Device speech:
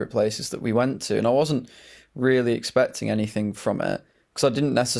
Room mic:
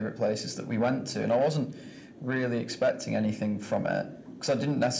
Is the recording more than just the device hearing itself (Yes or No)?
No